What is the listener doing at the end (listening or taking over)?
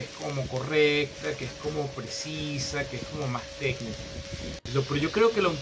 listening